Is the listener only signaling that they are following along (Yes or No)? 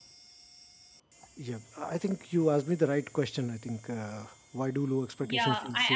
No